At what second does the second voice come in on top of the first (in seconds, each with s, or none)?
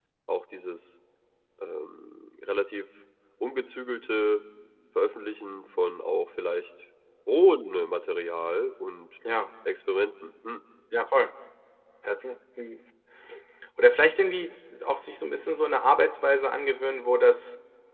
none